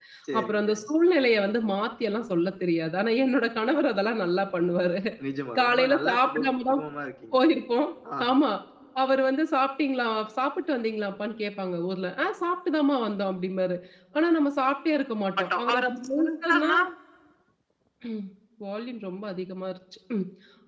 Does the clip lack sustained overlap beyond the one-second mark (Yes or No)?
No